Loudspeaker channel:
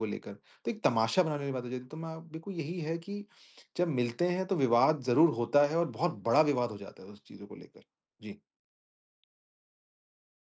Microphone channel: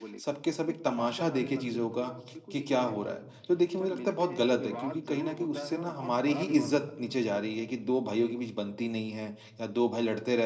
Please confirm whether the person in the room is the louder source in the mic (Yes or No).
Yes